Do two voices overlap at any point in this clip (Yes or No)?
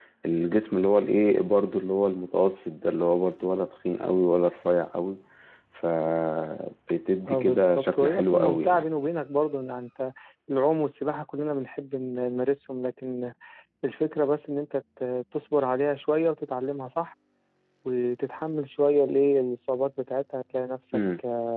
Yes